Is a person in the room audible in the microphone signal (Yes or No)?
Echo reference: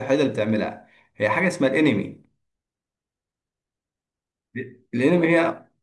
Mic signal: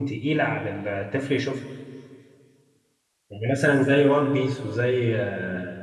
Yes